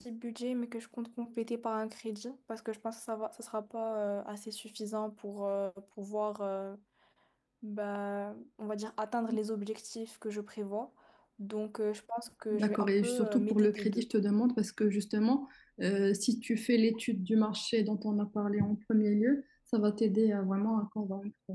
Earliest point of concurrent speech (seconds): 12.5 s

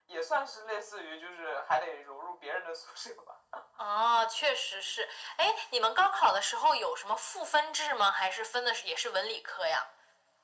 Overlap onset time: none

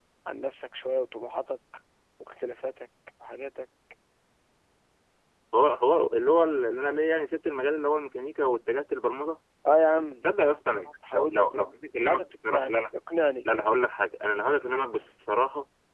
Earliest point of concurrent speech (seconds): 11.1 s

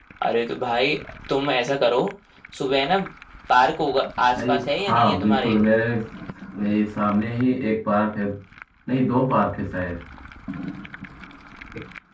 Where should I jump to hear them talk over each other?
4.4 s

